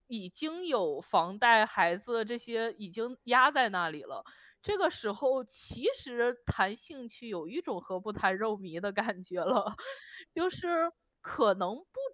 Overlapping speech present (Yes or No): No